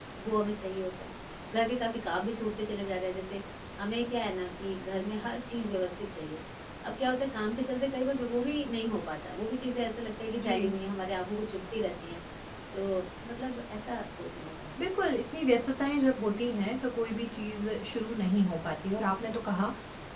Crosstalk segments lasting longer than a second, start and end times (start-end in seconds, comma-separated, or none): none